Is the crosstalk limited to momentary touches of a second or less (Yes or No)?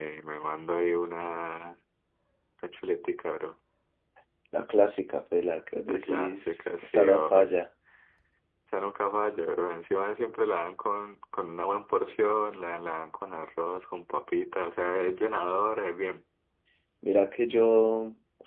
No